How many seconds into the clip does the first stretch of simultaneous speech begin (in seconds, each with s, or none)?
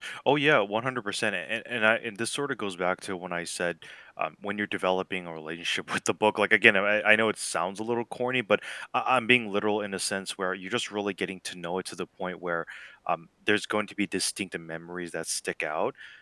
none